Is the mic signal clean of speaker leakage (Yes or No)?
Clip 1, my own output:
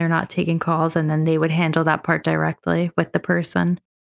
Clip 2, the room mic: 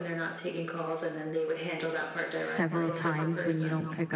No